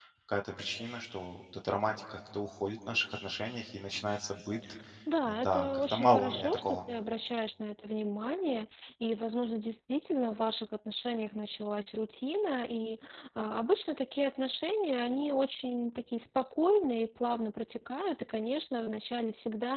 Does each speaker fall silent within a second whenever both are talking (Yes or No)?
No